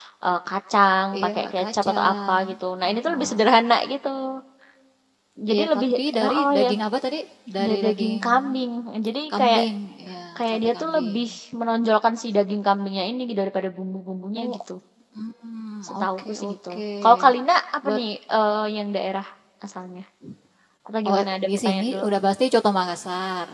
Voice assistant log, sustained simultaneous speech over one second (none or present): present